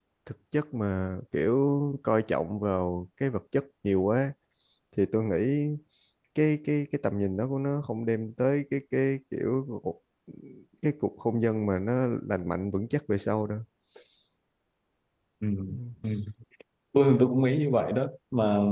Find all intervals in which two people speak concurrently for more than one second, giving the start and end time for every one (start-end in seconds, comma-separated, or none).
none